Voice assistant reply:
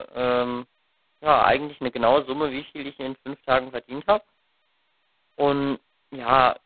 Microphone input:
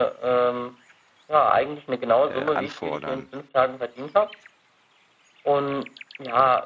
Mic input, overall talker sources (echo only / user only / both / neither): both